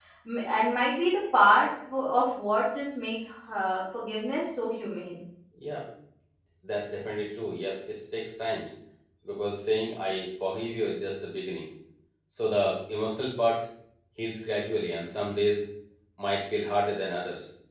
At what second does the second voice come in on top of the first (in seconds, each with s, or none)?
none